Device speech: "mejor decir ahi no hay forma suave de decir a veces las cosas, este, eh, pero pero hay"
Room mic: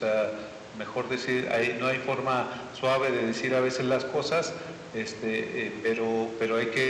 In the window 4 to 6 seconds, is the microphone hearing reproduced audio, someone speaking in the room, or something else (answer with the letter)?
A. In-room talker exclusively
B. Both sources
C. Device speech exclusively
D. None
C